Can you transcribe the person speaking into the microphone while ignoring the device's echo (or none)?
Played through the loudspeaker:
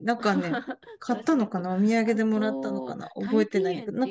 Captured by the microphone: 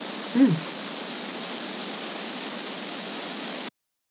うん。